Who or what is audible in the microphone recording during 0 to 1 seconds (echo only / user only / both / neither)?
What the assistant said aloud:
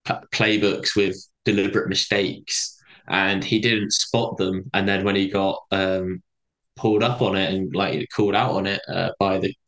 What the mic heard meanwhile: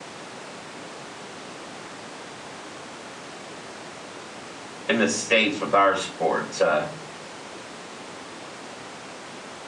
neither